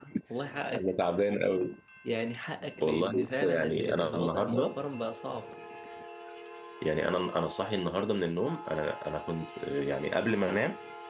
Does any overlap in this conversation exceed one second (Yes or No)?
Yes